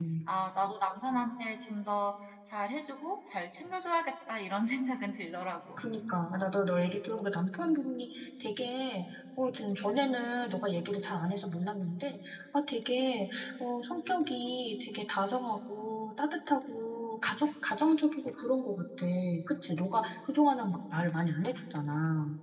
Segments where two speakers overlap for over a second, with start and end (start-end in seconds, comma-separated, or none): none